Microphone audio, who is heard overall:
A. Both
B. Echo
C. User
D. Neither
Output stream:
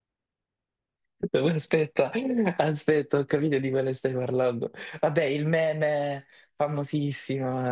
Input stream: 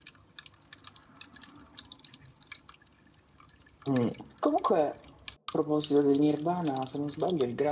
C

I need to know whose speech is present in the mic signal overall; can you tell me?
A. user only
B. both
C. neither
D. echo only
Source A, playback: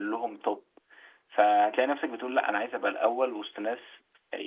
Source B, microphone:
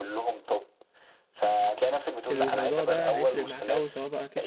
B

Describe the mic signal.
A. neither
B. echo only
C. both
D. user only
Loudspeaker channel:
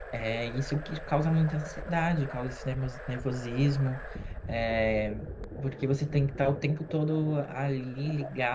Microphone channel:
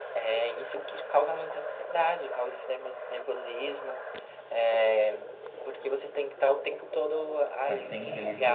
C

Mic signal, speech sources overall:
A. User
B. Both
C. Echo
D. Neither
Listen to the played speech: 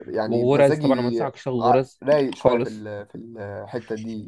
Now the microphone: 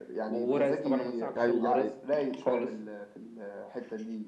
B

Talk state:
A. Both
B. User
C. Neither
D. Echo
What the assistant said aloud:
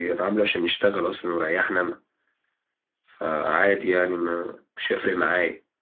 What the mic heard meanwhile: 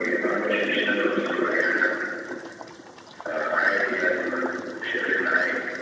D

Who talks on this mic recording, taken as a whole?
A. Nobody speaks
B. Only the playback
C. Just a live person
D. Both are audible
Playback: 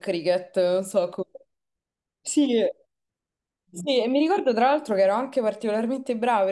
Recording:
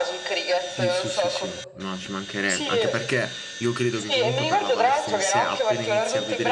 D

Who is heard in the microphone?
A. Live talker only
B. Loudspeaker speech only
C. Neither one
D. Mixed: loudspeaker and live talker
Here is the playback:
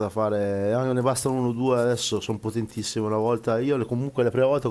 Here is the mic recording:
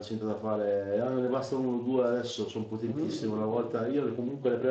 D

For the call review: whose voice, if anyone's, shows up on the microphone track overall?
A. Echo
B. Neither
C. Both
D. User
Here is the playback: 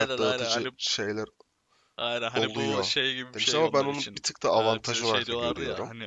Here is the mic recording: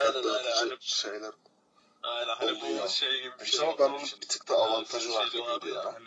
A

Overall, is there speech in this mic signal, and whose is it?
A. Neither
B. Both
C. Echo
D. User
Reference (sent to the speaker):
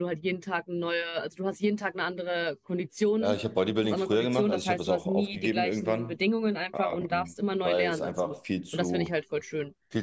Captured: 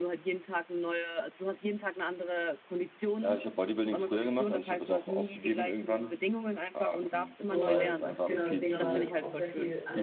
B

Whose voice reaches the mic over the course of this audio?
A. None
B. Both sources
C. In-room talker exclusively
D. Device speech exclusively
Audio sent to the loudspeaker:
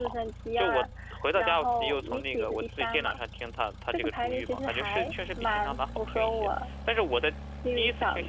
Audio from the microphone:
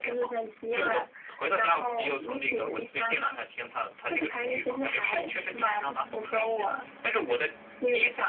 D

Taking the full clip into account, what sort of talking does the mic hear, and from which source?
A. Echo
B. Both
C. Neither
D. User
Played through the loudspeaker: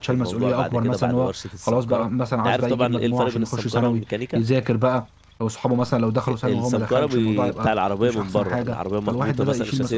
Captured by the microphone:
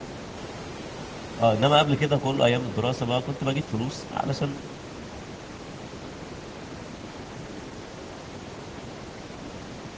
D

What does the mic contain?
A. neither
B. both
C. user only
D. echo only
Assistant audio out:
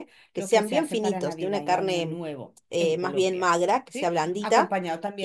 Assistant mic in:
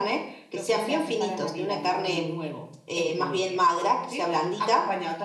D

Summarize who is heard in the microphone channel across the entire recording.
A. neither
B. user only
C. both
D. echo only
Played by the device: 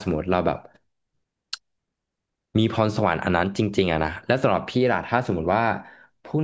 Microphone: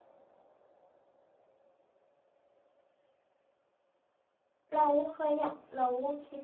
B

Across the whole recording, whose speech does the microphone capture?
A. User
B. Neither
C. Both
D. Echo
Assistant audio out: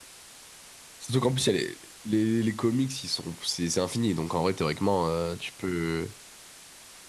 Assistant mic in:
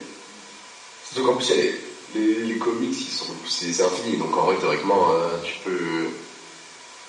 C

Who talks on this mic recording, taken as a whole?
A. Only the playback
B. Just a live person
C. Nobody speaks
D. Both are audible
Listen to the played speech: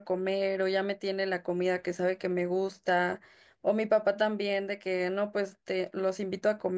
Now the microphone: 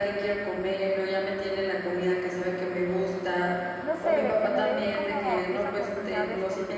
D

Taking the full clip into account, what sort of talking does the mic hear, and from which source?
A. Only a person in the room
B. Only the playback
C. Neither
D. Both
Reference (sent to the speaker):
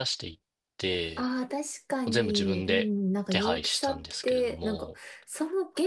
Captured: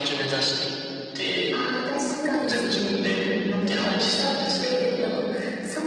D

